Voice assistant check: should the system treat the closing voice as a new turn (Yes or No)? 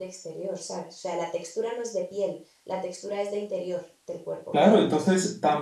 Yes